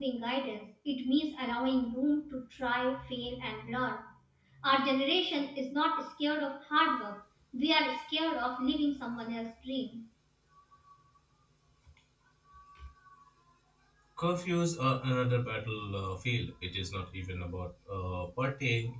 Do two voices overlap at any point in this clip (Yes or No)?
No